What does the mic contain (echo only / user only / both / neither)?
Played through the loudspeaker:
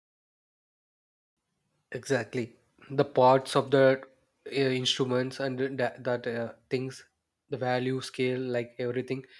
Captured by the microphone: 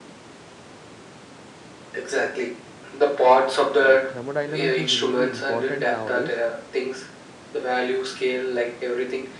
both